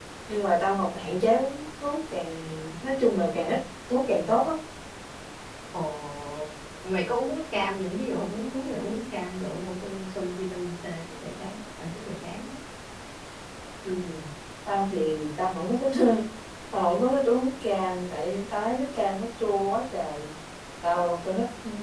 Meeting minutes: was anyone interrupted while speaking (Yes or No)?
No